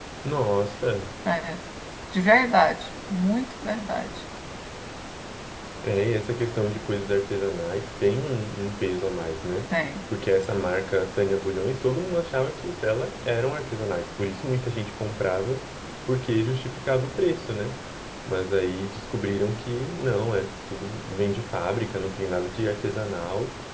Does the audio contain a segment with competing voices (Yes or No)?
No